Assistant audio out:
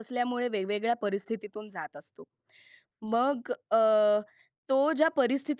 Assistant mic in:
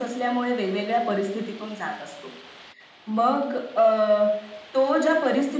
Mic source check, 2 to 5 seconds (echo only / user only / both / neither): echo only